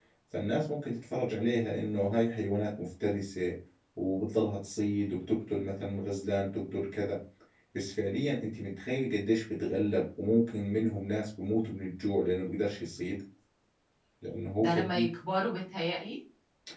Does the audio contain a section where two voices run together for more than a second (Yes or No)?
No